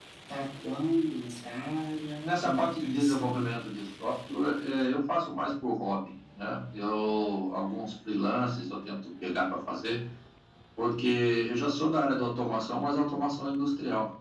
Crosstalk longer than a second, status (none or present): present